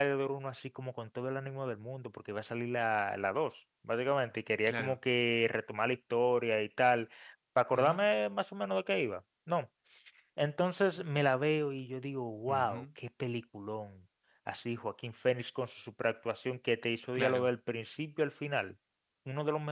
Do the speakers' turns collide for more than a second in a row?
No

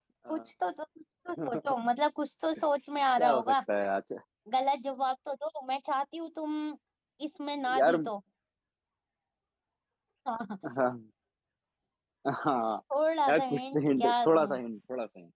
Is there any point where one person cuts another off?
Yes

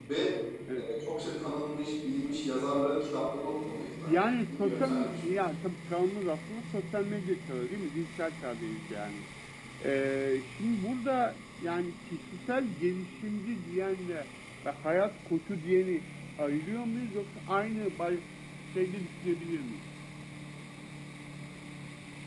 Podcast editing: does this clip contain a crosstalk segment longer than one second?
Yes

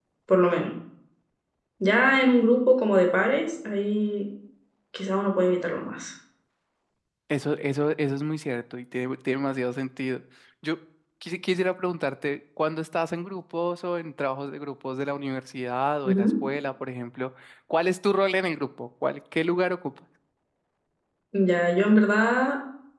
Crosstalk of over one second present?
No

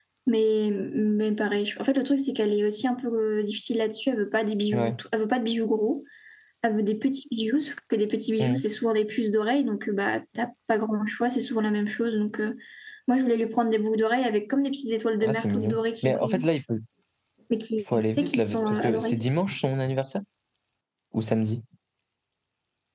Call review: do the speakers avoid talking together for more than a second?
No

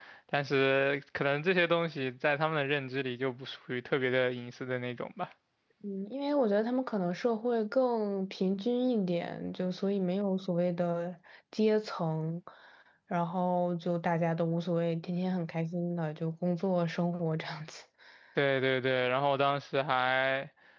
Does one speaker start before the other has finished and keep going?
No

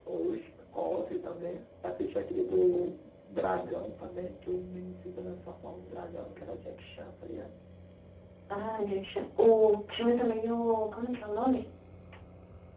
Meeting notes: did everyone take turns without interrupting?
Yes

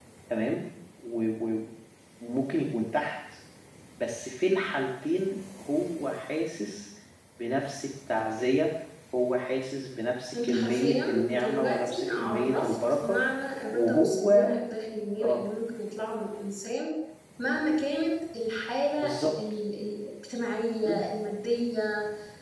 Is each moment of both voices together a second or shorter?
No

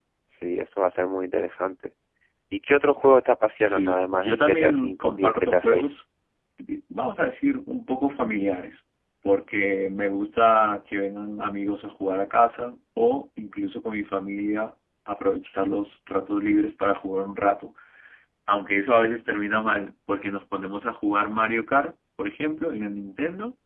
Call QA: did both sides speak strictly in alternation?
No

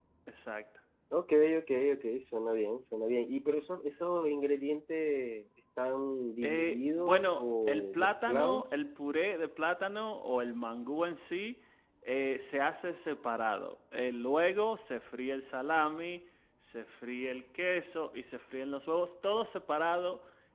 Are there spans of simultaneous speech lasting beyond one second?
Yes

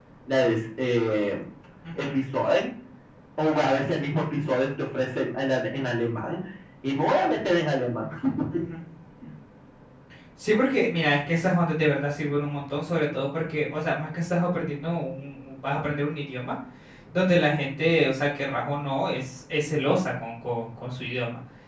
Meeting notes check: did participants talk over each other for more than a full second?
No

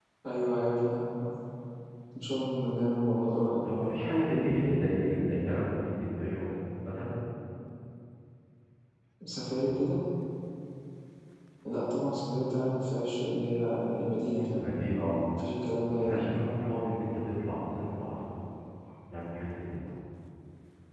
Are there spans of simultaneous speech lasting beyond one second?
No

